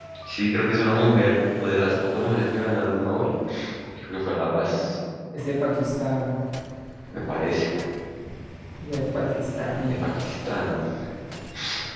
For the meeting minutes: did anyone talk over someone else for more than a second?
No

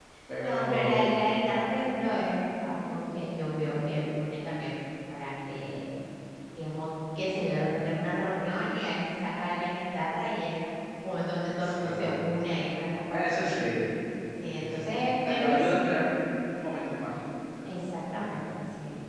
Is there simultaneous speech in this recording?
Yes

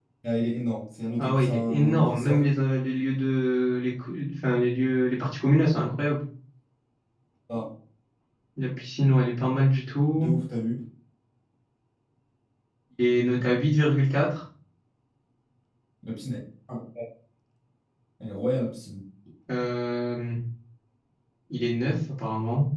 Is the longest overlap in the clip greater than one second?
Yes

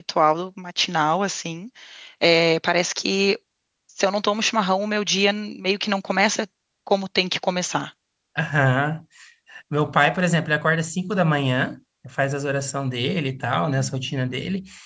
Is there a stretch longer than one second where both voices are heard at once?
No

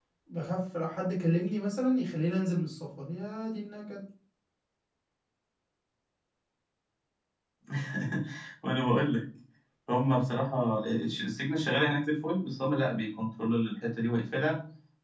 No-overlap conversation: Yes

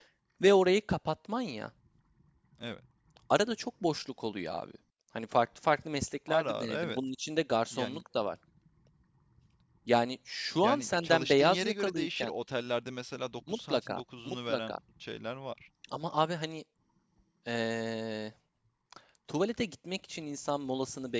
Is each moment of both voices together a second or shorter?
No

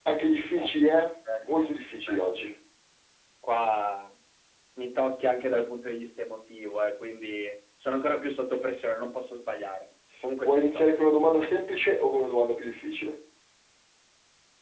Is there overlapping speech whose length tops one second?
No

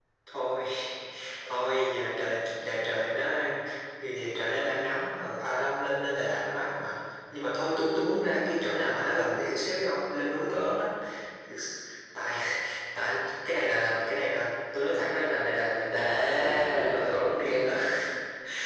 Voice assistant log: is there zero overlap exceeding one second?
No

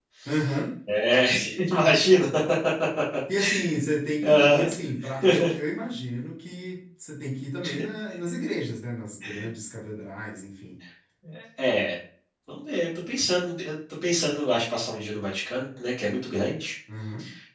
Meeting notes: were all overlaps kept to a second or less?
Yes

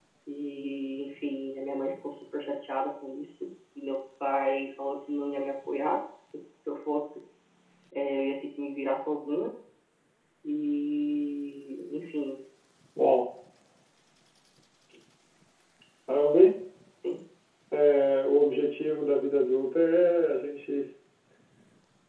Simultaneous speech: No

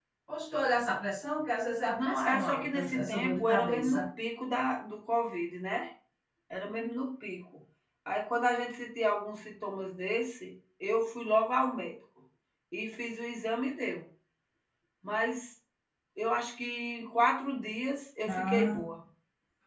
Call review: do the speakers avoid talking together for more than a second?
No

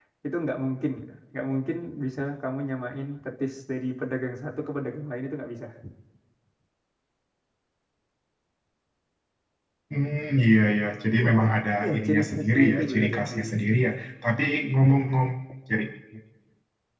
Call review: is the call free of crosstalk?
No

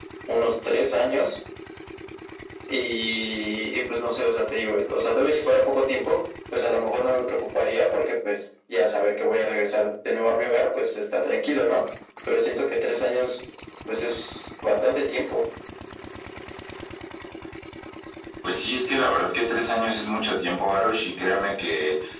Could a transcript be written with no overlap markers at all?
Yes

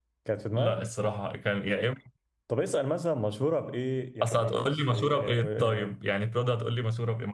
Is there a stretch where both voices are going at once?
Yes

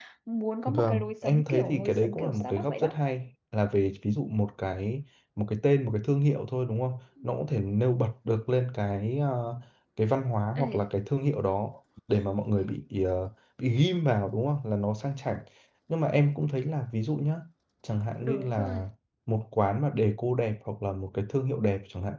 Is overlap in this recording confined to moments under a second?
No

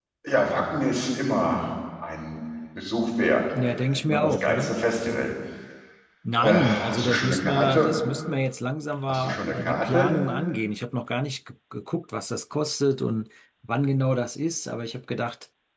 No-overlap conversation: No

